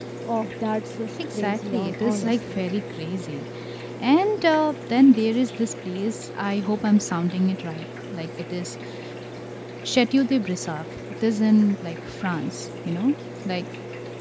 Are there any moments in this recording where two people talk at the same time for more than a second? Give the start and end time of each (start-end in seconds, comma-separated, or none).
1.4-2.6